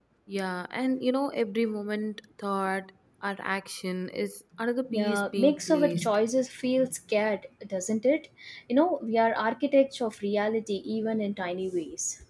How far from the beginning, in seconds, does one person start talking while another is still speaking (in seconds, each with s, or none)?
4.9 s